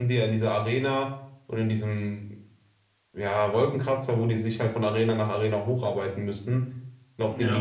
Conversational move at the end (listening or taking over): listening